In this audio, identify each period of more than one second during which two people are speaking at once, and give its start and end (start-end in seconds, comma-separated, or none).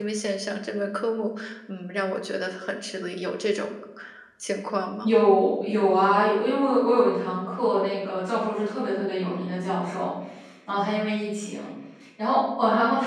none